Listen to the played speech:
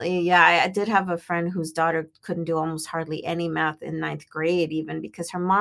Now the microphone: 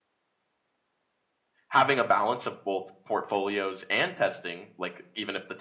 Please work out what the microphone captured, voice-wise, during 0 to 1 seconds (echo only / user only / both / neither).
neither